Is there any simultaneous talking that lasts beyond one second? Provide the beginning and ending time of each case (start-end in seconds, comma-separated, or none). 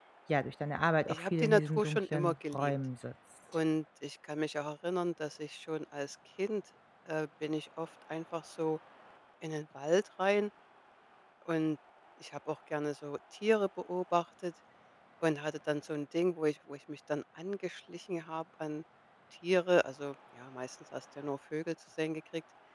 1.1-2.7